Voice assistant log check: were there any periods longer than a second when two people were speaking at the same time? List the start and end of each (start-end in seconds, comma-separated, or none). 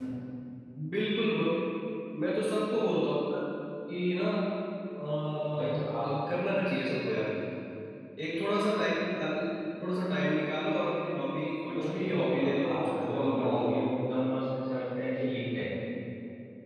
11.7-13.8